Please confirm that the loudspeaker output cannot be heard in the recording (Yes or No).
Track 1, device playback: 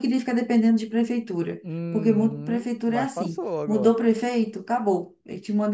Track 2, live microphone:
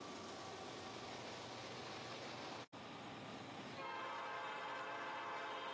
Yes